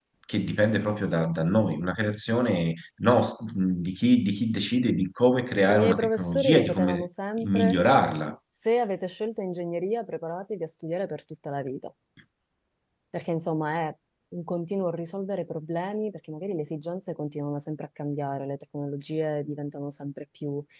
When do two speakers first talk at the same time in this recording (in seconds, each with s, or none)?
5.7 s